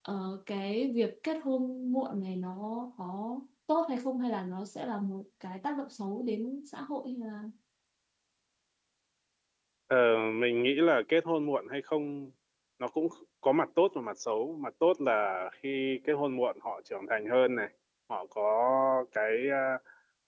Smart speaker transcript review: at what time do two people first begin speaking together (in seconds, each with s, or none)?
none